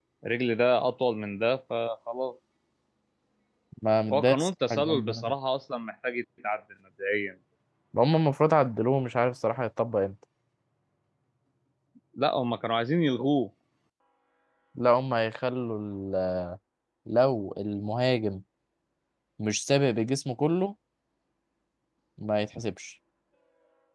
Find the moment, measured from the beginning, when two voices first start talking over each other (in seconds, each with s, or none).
4.1 s